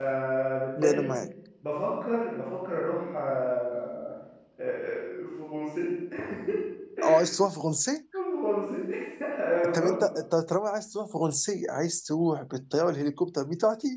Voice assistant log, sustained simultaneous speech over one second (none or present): none